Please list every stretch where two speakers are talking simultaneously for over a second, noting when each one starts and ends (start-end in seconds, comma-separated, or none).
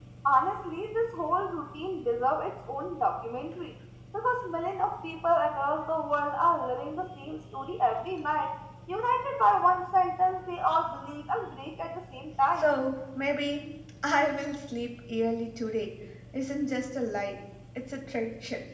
none